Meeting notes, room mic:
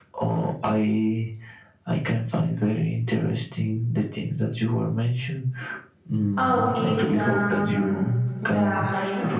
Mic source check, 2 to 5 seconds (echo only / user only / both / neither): echo only